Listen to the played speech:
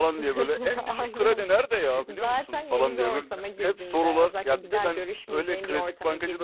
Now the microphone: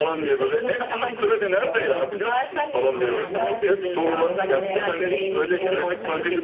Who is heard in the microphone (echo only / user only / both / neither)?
both